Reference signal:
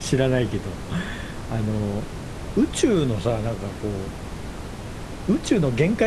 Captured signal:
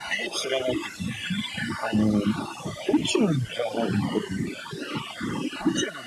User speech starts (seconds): none

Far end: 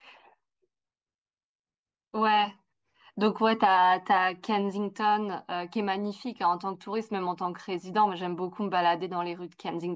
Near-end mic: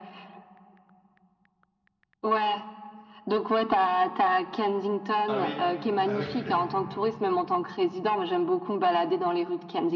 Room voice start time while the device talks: 5 s

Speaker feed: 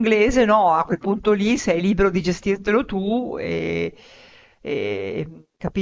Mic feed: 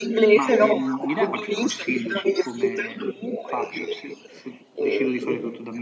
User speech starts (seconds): 0 s

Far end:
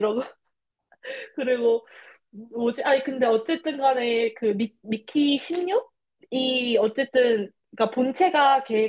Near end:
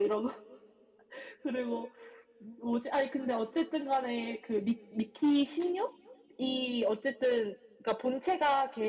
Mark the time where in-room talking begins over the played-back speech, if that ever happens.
none

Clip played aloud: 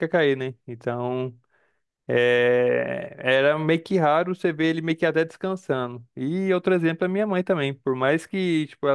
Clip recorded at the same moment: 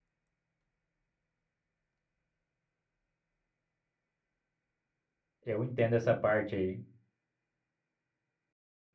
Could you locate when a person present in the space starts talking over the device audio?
5 s

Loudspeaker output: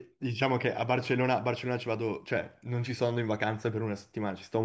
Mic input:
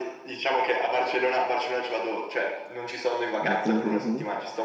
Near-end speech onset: 3 s

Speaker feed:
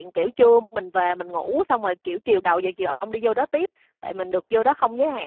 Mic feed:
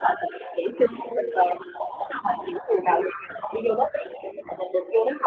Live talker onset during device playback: none

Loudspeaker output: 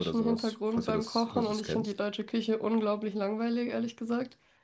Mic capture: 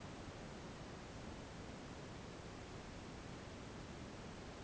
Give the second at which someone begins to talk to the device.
none

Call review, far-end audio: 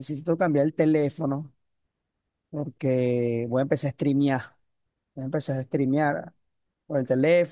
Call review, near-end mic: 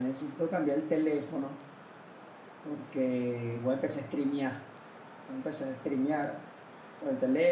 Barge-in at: none

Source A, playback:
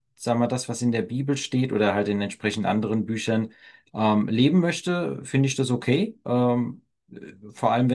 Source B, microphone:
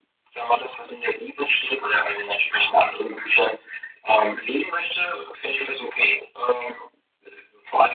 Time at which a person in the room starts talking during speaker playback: none

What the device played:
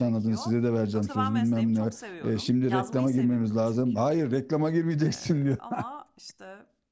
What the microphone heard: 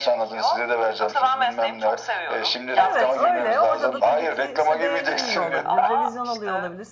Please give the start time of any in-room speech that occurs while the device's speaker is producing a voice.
3 s

